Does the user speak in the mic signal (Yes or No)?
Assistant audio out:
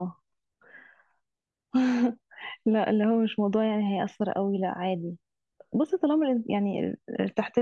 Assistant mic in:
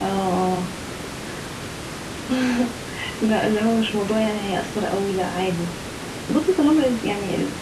No